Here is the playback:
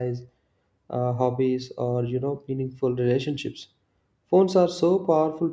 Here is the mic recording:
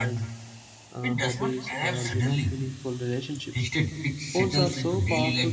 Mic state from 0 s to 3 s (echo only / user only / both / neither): both